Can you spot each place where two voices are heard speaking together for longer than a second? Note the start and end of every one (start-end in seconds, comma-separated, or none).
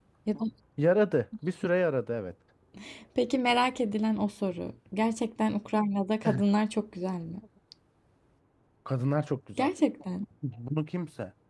none